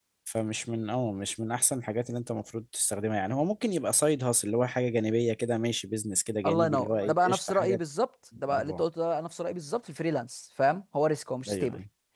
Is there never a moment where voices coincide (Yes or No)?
No